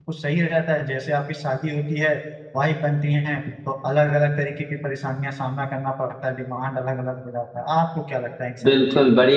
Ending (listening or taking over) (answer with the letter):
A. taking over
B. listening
A